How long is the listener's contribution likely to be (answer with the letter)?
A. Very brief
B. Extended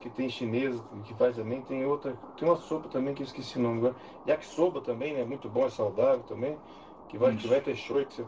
A